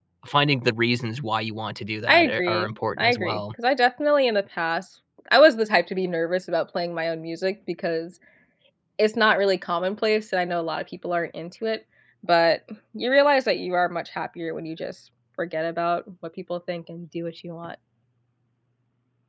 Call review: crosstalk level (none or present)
present